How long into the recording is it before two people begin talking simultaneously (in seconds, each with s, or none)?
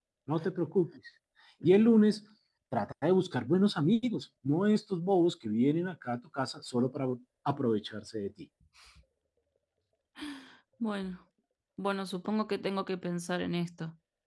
none